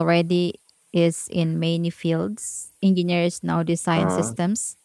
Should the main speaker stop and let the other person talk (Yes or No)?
No